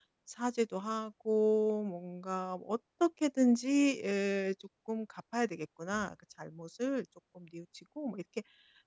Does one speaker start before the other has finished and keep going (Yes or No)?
No